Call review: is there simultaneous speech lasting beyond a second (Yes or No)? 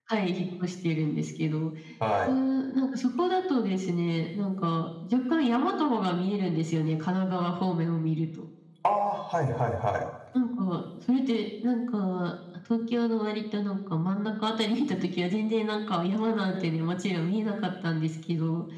No